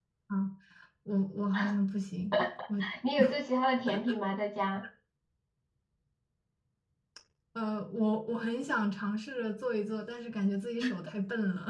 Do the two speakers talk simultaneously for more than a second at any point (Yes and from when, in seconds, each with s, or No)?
No